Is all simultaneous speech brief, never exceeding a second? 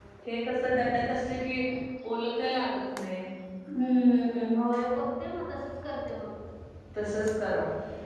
Yes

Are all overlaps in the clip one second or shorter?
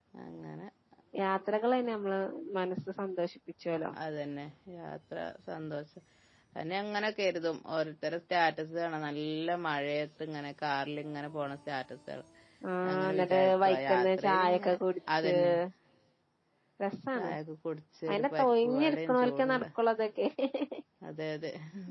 No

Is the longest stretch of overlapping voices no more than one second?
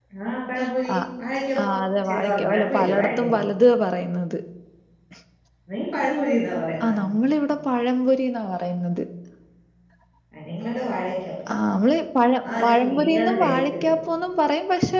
No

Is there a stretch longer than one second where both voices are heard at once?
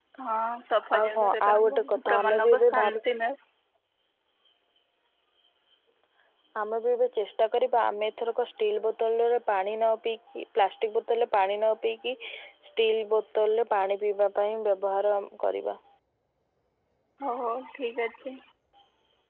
Yes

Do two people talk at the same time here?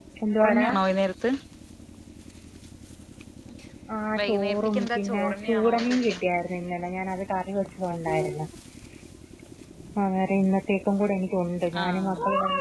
Yes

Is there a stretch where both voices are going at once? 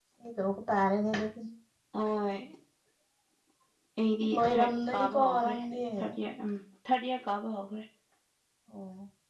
Yes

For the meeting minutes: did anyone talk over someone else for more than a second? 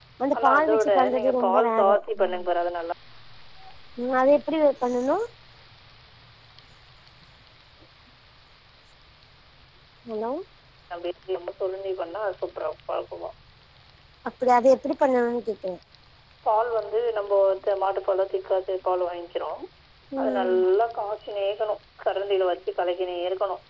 Yes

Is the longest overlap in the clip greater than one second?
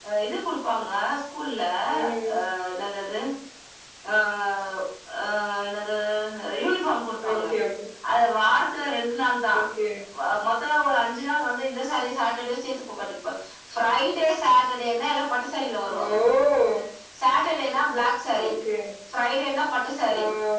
No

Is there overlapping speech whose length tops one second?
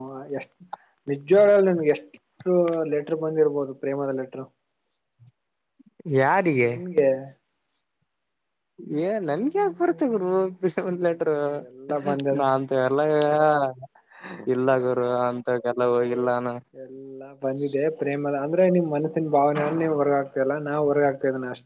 No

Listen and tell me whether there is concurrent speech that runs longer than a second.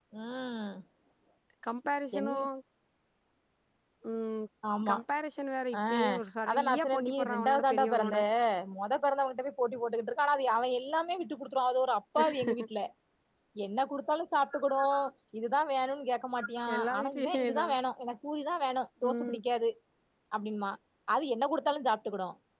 Yes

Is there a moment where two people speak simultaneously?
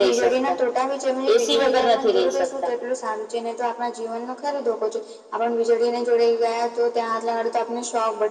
Yes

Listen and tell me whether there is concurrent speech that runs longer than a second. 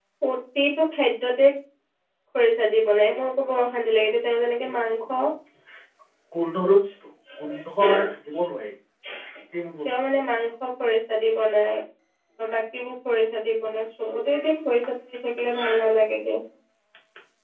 No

